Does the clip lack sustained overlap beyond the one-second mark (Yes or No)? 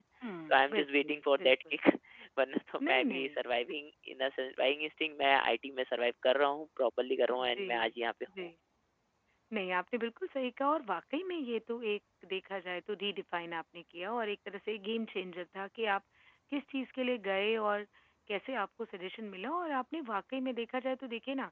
No